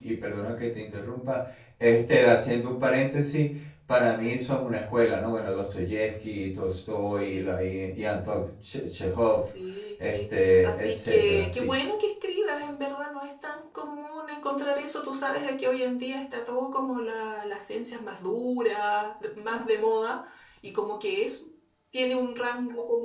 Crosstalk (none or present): present